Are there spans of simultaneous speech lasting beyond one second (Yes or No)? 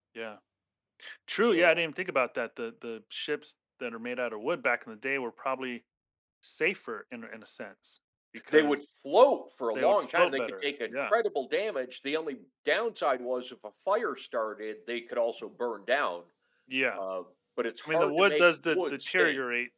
Yes